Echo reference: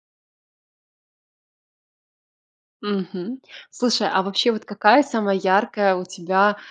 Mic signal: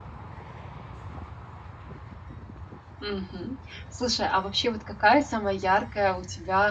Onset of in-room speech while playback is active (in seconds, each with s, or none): none